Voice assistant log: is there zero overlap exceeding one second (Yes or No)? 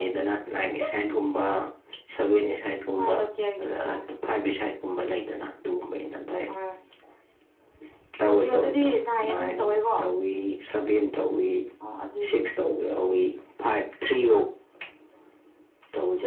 No